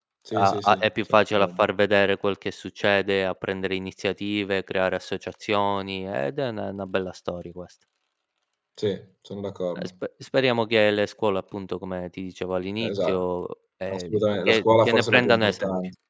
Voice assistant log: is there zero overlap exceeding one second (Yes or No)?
No